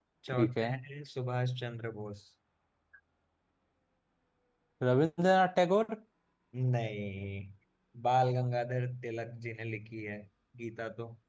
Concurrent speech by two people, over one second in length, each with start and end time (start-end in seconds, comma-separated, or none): none